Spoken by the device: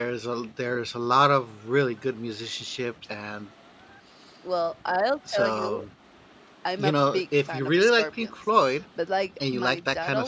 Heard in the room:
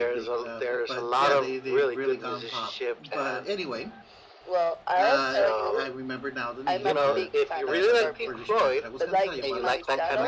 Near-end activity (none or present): present